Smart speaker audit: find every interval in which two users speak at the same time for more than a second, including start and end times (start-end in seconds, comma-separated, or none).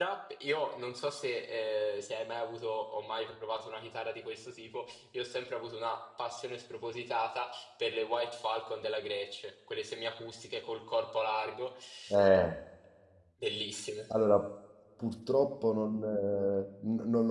none